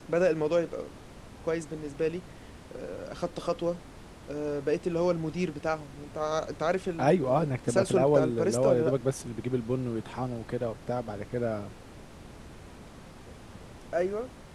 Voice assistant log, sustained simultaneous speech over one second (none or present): present